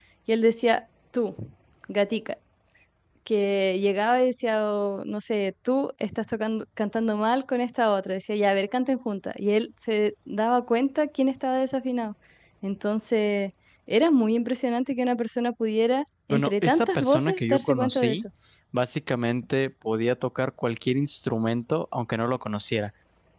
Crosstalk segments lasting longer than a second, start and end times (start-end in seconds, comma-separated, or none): 16.3-18.2